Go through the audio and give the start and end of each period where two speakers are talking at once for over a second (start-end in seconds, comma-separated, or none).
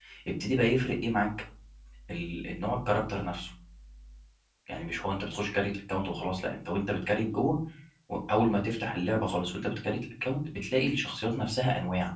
none